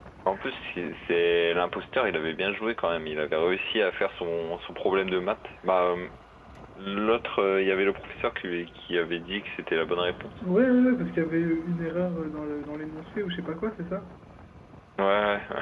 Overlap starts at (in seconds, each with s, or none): none